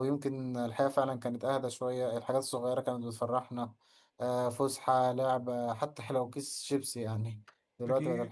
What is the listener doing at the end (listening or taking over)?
listening